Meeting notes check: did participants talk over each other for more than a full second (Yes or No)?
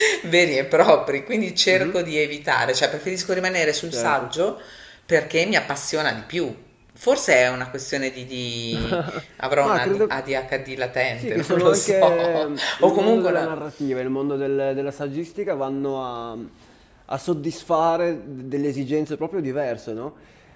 Yes